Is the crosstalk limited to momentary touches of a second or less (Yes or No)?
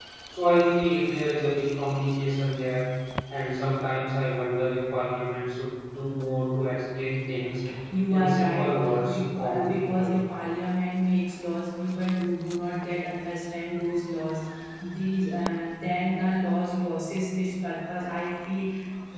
No